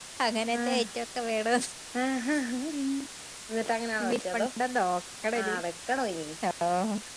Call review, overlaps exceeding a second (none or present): none